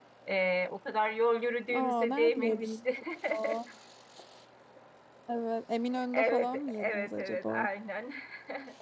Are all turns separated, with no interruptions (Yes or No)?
No